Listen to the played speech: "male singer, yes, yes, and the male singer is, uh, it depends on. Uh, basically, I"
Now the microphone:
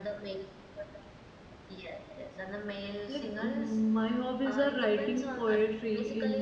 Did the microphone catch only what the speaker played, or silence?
No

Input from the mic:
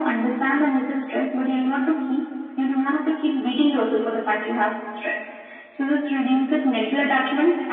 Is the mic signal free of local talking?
Yes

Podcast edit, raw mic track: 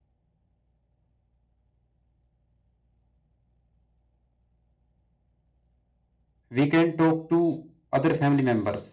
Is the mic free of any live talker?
No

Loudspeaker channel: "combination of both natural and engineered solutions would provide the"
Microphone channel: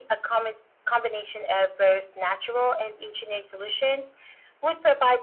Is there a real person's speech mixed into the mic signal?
No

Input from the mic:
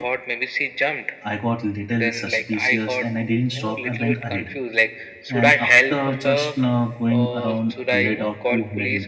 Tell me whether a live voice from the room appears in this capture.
Yes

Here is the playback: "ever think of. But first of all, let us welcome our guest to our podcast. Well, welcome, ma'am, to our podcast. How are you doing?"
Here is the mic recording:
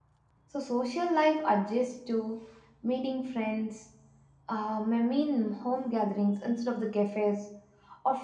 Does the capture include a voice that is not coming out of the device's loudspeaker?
Yes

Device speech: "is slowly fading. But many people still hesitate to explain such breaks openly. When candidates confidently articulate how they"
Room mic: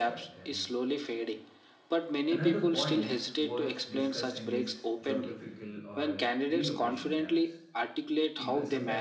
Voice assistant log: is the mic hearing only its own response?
No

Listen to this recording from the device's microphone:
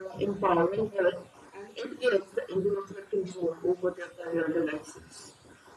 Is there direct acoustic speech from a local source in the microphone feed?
No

